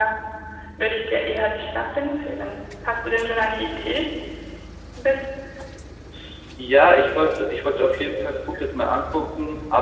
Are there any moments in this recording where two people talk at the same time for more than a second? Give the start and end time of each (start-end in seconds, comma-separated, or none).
none